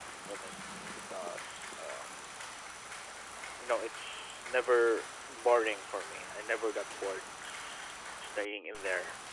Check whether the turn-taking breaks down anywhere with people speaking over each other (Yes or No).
No